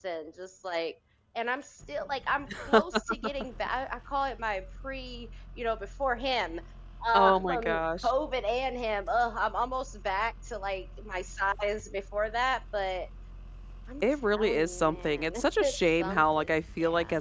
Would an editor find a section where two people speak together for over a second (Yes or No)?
Yes